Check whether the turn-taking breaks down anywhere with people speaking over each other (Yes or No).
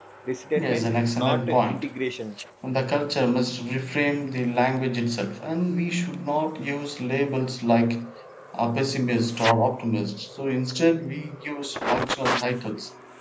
Yes